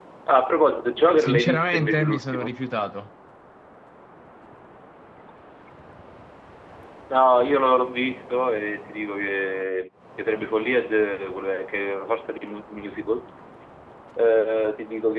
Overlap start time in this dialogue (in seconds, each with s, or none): 1.2 s